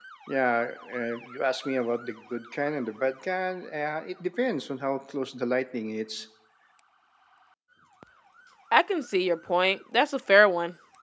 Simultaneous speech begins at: none

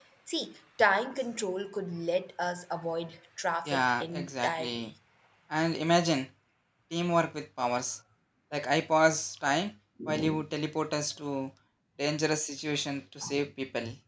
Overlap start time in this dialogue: 3.7 s

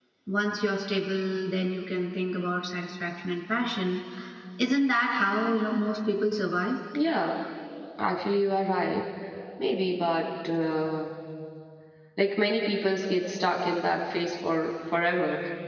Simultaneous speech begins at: none

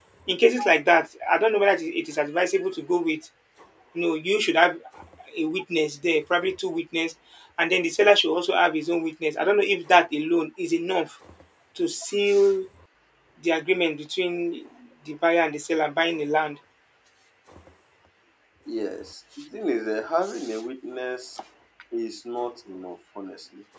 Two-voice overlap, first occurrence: none

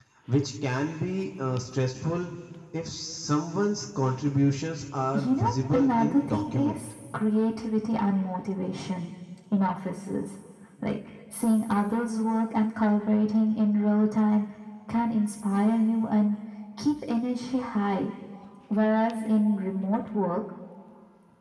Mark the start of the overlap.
5.1 s

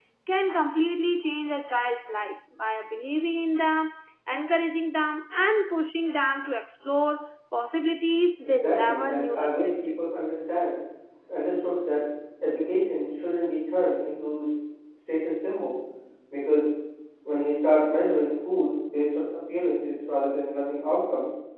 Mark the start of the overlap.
8.4 s

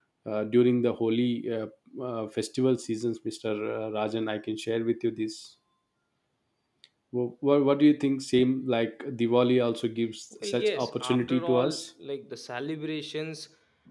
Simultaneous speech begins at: 10.4 s

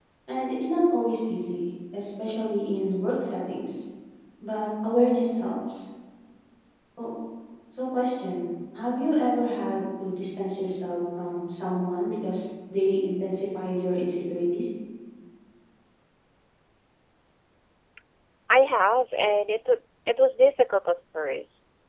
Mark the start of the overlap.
none

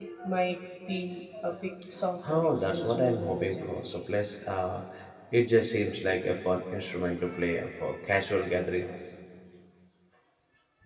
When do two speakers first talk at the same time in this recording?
2.2 s

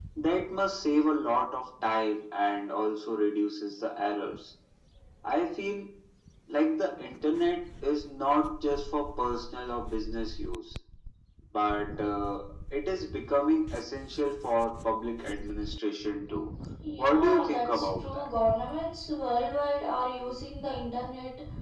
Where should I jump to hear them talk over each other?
17.0 s

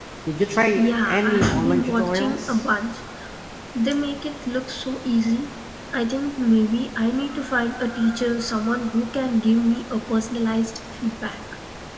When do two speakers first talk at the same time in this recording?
0.8 s

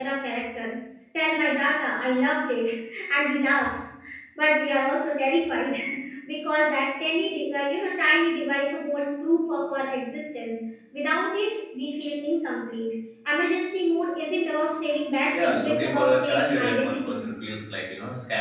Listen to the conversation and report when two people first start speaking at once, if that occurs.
15.3 s

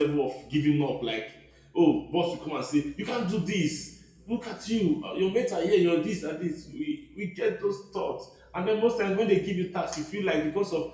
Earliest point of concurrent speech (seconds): none

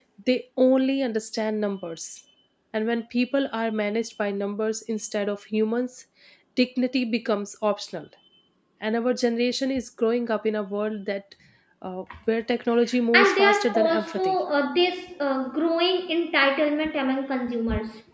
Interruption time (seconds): 13.1 s

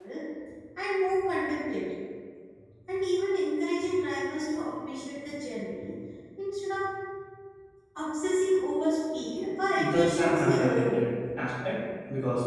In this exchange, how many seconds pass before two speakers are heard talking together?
9.7 s

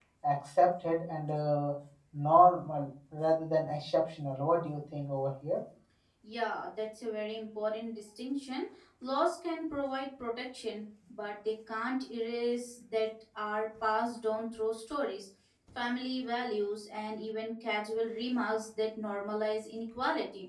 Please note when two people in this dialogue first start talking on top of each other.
none

